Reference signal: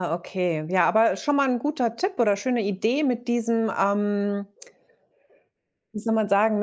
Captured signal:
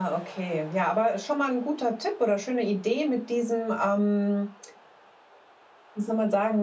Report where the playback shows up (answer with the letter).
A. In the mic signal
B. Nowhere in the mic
A